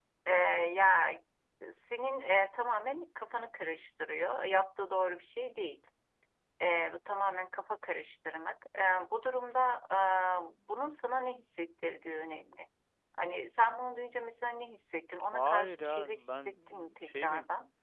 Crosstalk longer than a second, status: present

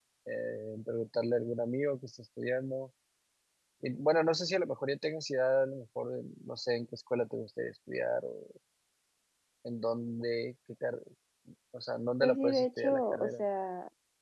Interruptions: present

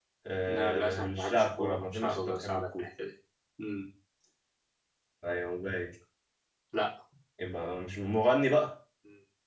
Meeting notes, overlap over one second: present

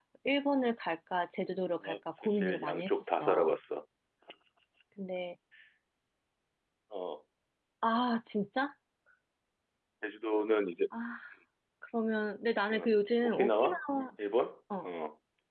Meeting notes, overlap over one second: present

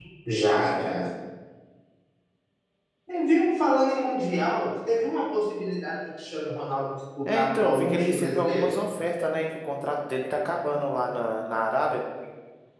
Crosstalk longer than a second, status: present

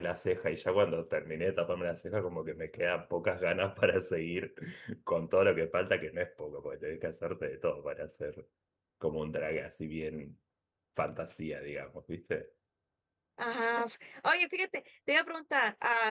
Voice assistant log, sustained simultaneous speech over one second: none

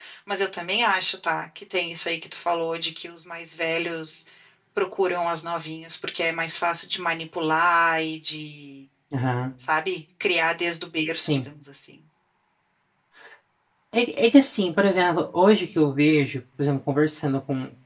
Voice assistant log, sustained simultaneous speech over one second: none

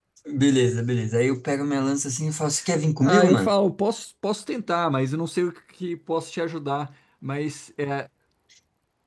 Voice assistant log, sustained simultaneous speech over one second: none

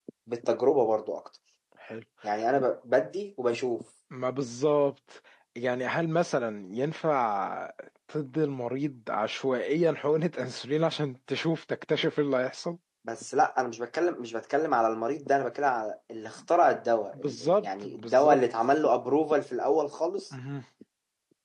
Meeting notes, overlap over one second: present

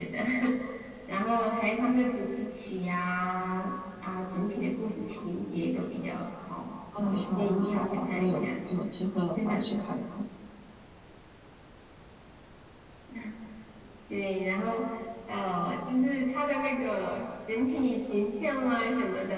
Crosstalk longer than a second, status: present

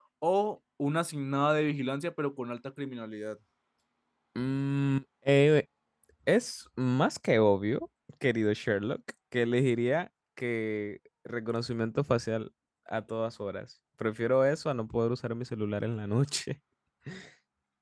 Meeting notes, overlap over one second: none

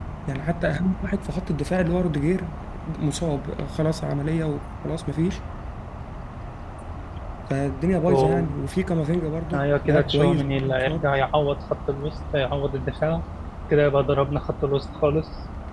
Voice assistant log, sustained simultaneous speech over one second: present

